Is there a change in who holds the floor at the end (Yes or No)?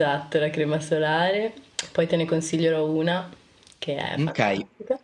Yes